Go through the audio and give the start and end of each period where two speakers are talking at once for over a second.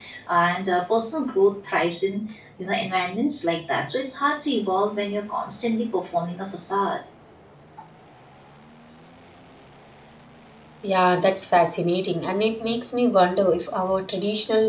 none

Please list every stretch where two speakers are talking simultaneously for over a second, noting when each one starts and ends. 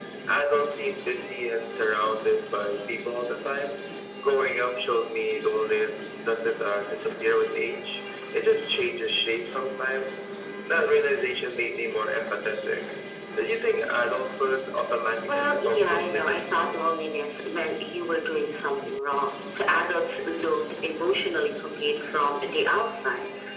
15.3-16.8

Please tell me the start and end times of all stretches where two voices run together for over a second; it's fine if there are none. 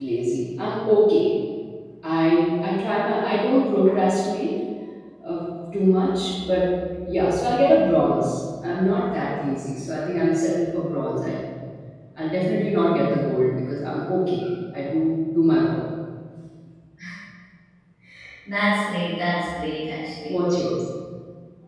none

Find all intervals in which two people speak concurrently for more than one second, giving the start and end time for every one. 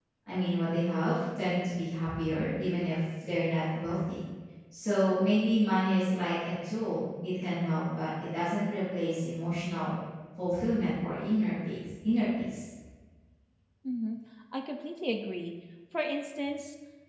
none

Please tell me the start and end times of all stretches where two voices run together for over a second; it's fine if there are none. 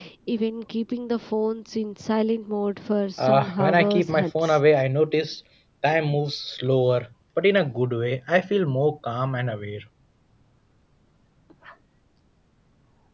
3.2-4.6

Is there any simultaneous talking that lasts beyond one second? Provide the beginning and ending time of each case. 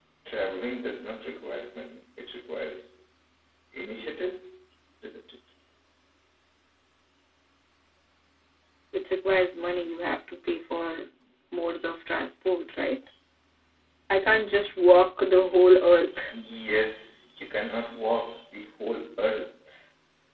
none

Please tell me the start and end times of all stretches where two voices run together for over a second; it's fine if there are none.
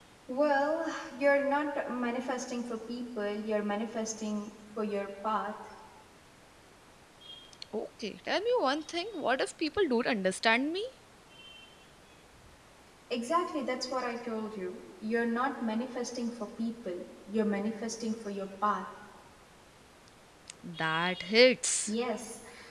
none

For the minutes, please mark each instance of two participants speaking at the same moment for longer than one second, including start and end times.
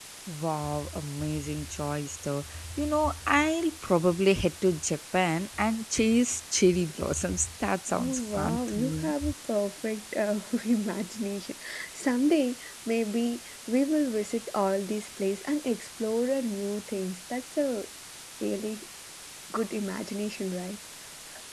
7.9-9.1

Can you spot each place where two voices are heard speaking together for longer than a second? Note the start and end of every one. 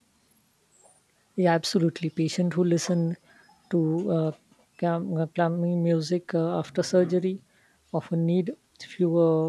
none

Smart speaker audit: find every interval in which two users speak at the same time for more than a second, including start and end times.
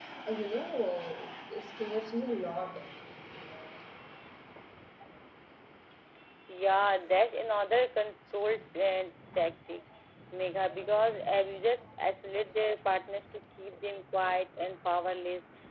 none

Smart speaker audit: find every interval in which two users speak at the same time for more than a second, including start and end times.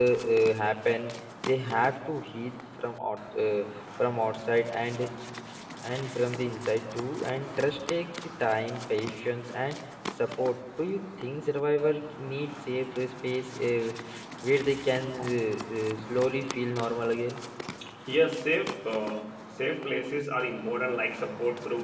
none

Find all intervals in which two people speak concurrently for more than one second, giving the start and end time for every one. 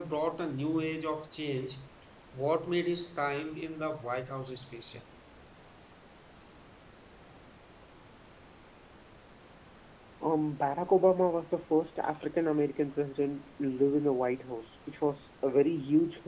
none

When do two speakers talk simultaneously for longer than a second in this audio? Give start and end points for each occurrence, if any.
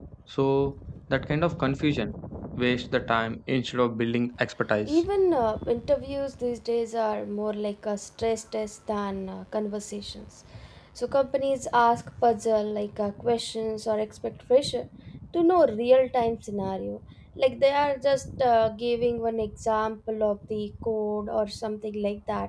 none

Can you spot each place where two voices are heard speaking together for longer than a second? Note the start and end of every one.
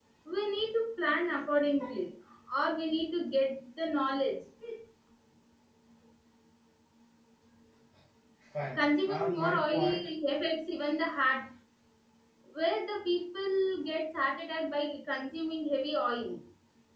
8.8-10.1

